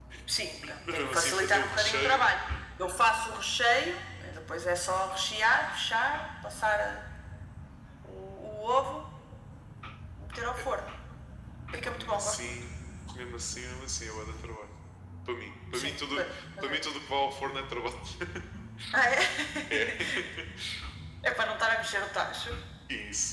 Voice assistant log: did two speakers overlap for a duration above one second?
Yes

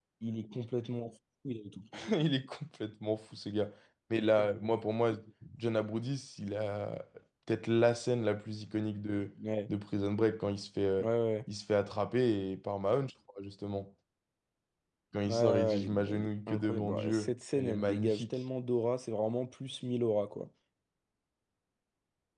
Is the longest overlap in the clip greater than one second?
Yes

